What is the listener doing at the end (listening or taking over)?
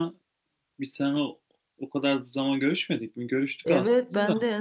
taking over